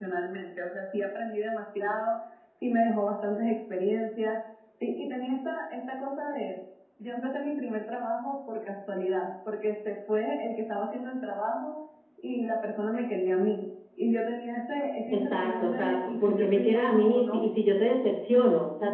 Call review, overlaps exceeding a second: present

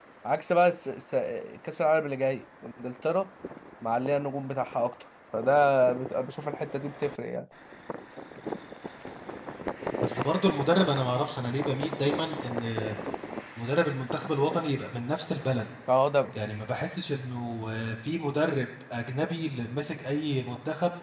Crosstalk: none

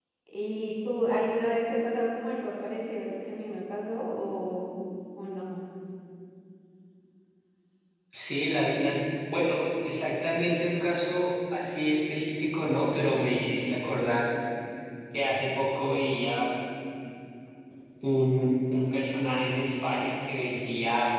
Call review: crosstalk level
none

